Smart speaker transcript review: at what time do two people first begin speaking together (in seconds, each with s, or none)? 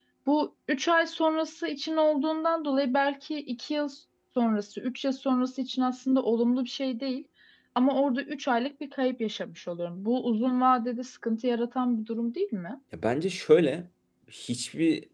none